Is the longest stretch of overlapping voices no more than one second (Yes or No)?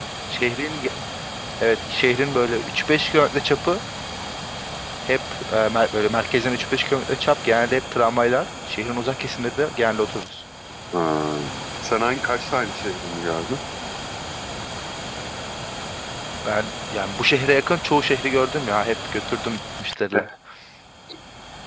Yes